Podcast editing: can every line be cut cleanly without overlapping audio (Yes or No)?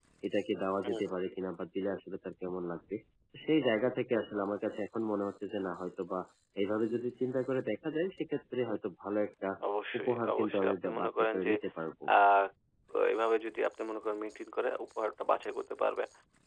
No